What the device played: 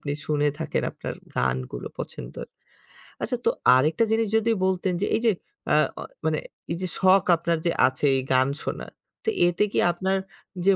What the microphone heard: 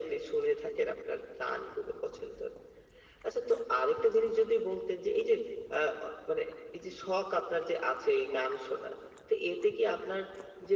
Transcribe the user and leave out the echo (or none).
none